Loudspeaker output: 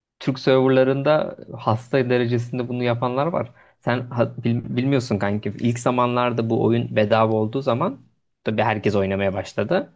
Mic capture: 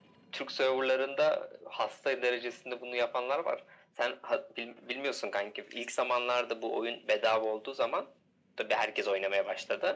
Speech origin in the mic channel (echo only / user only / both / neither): echo only